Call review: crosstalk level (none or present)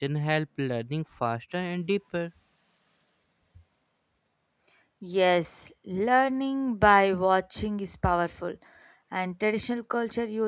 none